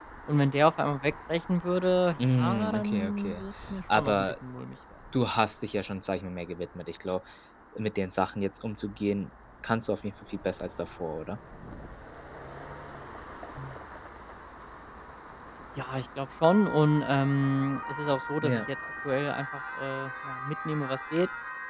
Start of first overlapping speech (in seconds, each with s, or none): 2.2 s